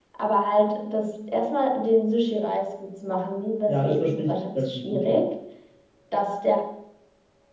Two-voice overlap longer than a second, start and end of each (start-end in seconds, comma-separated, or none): 3.7-5.2